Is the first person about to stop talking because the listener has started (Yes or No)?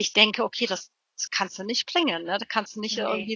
No